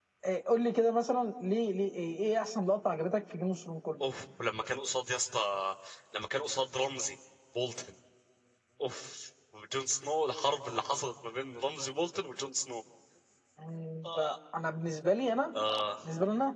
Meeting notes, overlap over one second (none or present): none